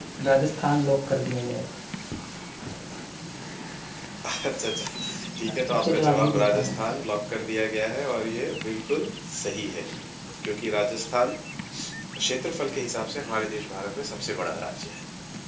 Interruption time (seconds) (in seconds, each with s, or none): 5.5 s